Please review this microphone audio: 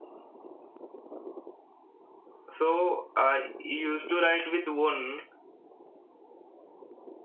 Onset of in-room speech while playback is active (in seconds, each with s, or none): 2.5 s